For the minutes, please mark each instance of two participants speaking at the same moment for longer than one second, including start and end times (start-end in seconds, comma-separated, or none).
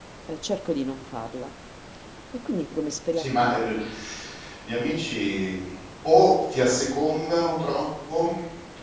none